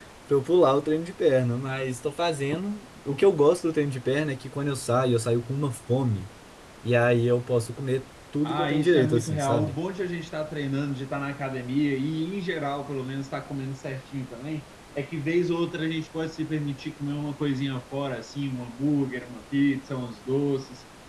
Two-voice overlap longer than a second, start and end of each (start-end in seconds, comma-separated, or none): 8.4-9.8